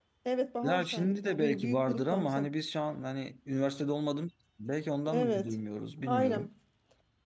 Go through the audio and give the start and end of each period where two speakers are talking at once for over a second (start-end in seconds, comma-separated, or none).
0.6-2.5